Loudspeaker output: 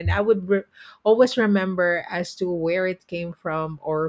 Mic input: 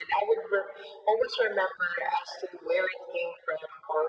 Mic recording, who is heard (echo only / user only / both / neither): echo only